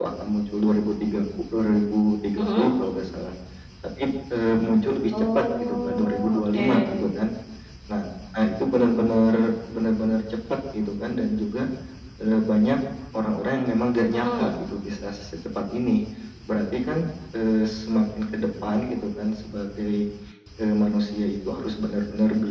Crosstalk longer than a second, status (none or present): present